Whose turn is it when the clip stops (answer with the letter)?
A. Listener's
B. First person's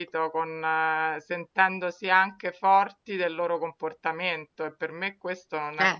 B